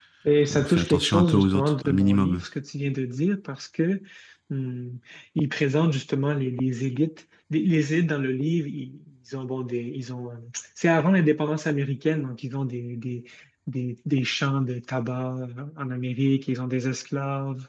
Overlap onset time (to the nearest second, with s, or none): 1 s